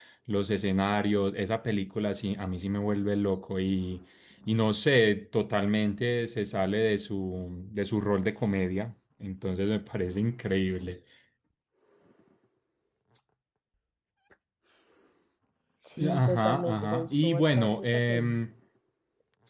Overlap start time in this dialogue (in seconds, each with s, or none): 16.1 s